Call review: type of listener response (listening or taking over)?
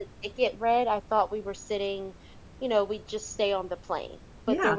listening